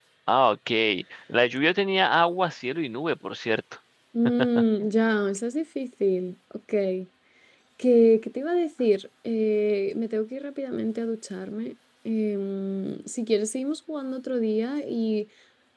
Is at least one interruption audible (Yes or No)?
No